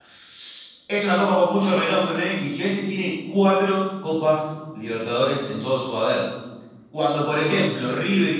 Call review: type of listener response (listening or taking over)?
listening